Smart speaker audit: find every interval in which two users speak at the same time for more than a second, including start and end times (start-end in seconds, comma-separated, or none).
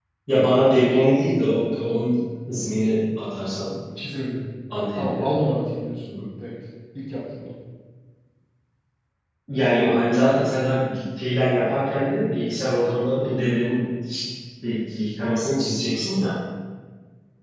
none